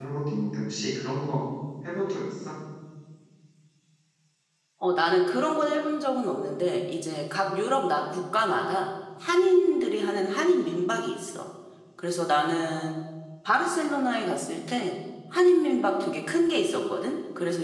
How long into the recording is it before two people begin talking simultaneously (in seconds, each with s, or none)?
none